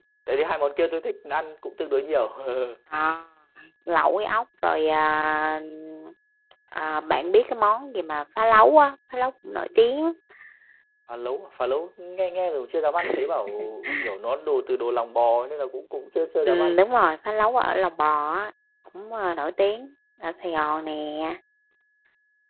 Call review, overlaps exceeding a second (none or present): none